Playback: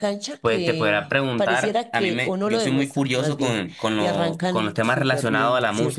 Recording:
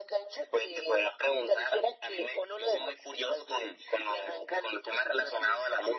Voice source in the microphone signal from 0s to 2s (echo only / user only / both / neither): echo only